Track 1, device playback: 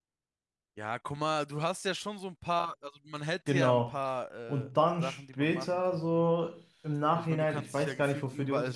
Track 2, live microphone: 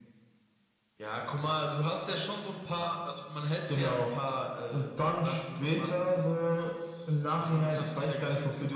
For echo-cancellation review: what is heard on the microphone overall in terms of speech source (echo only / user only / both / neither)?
echo only